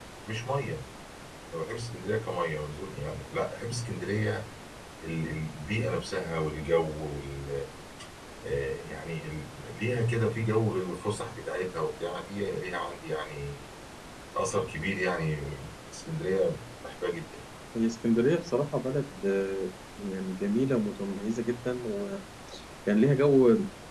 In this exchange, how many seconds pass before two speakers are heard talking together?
none

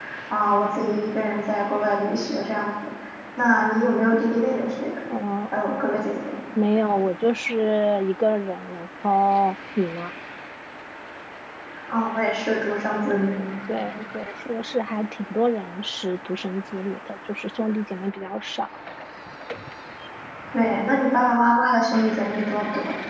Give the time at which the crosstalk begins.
none

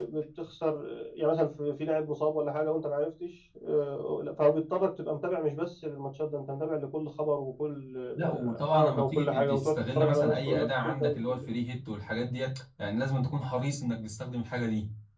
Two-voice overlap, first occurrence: 8.1 s

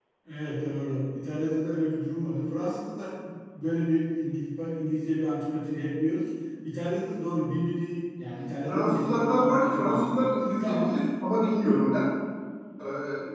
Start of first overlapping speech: 8.7 s

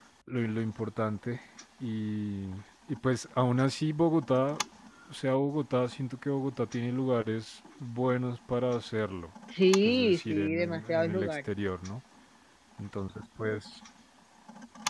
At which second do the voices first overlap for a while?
9.8 s

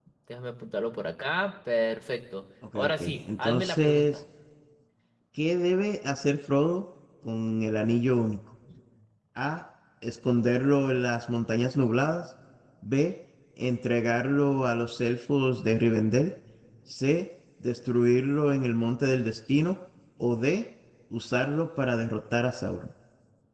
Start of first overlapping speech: 2.6 s

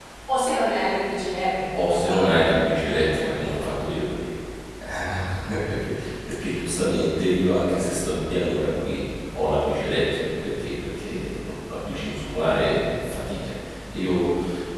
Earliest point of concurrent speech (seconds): 1.7 s

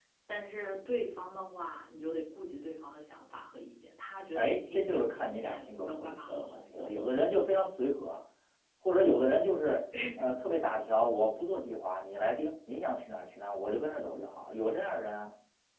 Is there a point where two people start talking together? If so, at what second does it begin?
4.3 s

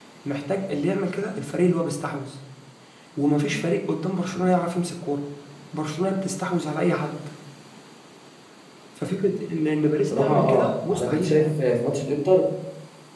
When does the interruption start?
10.1 s

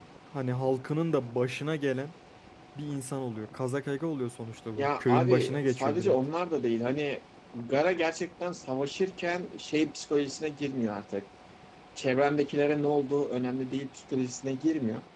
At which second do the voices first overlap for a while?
4.8 s

